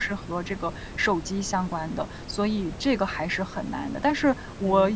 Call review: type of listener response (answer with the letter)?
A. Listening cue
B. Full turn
A